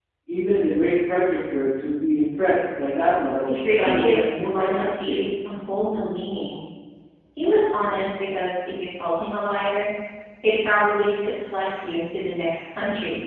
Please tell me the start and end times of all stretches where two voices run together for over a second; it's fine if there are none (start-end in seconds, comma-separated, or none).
3.4-5.3